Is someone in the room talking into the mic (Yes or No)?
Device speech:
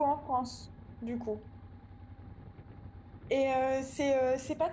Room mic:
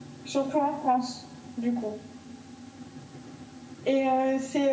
No